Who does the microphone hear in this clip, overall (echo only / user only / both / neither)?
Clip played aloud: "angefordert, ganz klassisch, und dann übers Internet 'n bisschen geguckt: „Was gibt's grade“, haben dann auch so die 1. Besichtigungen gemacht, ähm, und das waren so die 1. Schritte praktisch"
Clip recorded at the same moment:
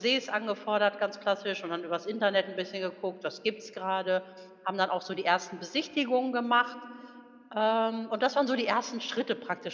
echo only